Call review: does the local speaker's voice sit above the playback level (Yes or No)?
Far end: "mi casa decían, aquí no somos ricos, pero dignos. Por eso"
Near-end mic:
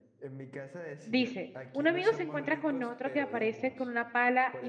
Yes